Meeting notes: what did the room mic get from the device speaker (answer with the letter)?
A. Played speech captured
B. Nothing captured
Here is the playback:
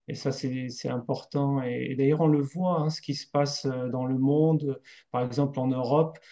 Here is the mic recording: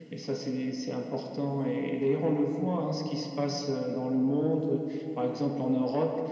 A